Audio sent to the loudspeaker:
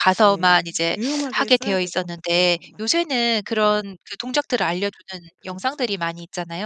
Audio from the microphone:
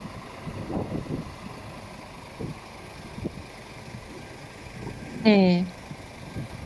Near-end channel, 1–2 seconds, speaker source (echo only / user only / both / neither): neither